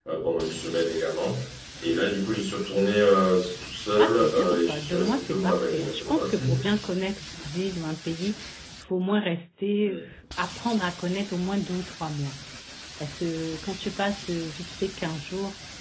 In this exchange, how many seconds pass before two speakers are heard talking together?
4.0 s

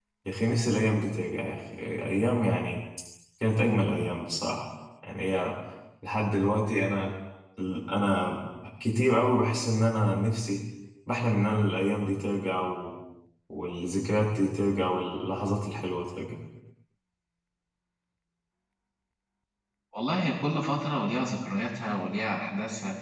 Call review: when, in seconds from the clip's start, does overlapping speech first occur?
none

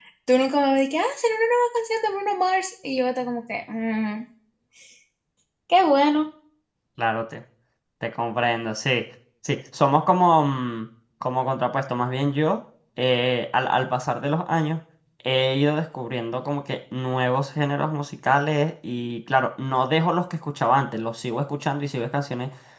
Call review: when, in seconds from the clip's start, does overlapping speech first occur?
none

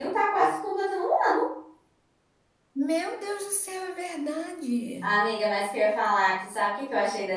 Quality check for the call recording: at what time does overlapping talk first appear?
none

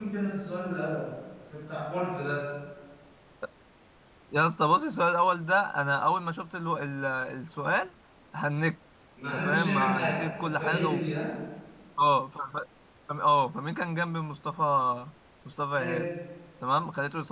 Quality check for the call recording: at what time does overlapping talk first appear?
9.3 s

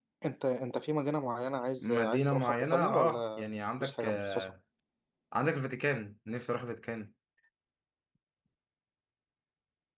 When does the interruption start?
1.8 s

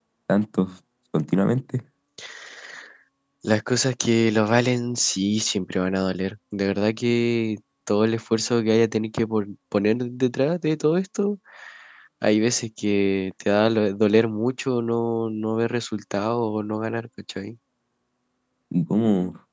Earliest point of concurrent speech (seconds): none

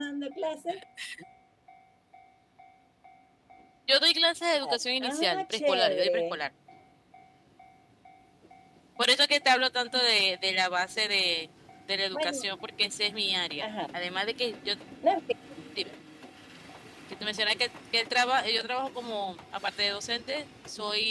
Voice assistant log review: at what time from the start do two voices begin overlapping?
4.5 s

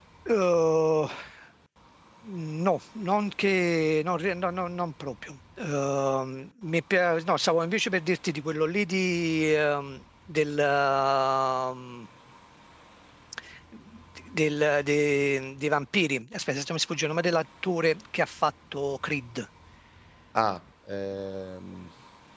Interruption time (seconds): none

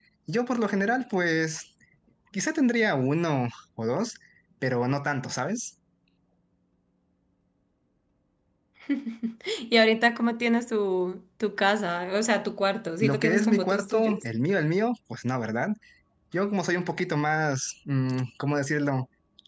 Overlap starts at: 13.0 s

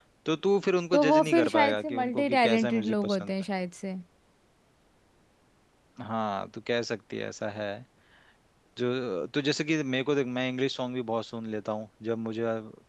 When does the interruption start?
0.9 s

